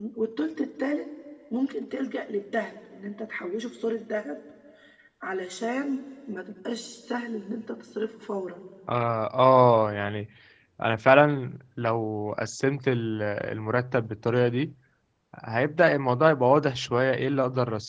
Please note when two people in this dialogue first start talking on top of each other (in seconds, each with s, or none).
none